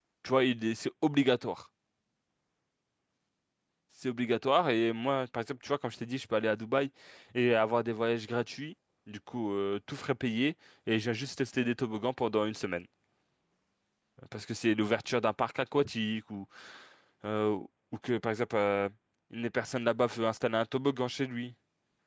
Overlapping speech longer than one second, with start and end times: none

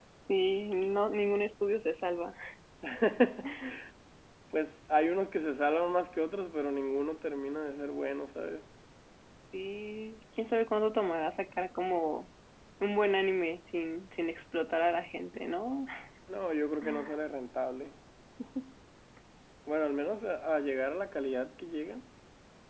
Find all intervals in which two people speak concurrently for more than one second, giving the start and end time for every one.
none

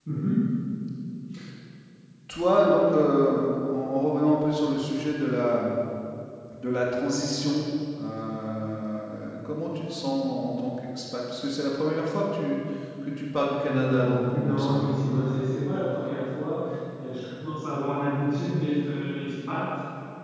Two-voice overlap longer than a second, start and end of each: 13.7-14.9

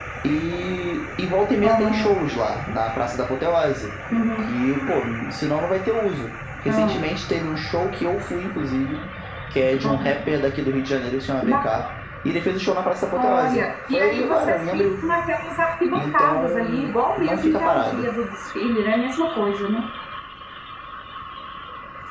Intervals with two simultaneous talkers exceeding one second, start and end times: 13.2-15.1, 15.9-18.1

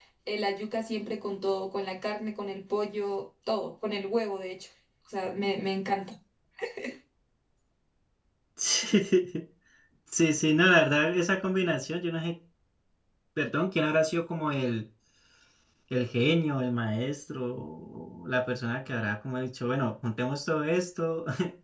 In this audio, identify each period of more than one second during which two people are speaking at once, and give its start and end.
none

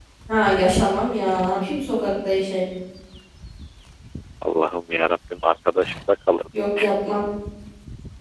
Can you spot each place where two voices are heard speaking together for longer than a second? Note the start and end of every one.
none

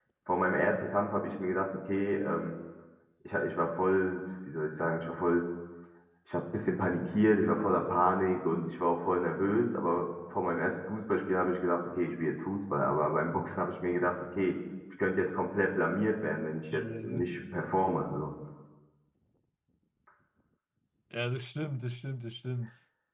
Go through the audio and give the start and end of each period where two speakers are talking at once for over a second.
none

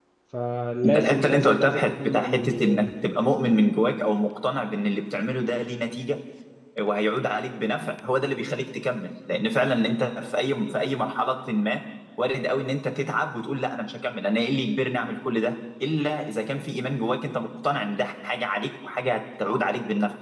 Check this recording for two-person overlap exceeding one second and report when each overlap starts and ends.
0.8-2.9

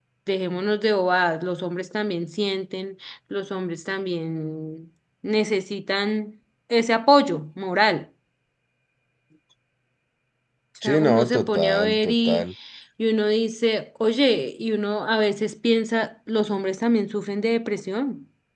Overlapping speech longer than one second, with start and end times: 10.8-12.4

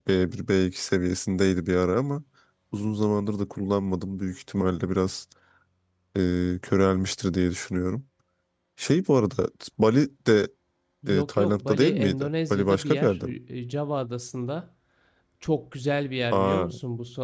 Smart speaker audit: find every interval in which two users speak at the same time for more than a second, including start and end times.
11.1-13.3

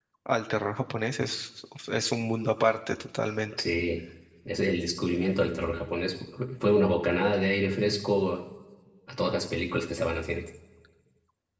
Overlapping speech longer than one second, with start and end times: none

